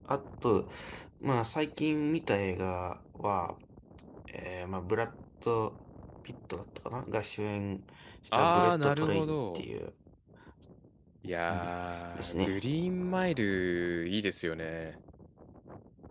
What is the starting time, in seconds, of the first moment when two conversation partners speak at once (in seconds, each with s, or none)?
8.3 s